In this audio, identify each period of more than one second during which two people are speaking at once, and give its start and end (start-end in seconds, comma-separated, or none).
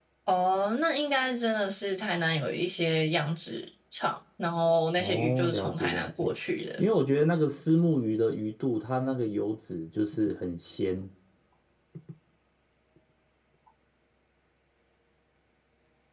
5.0-6.3